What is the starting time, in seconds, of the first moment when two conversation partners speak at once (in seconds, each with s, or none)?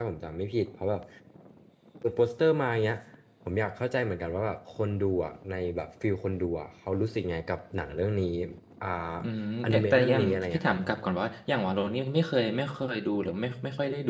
9.6 s